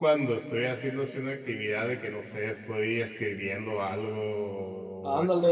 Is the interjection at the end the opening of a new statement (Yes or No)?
Yes